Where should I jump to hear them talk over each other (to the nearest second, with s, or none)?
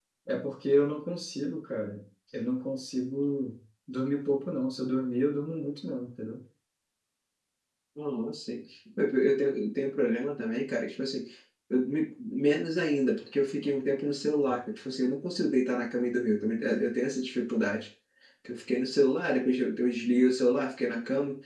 none